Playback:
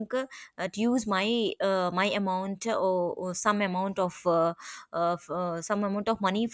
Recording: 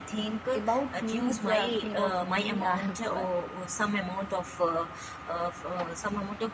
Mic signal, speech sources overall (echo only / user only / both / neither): both